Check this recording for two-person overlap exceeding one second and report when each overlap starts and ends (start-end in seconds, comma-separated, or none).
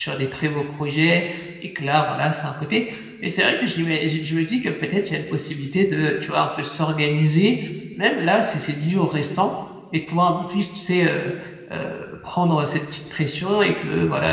none